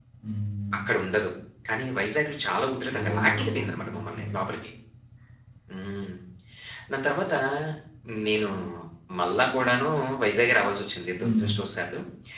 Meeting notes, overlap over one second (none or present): present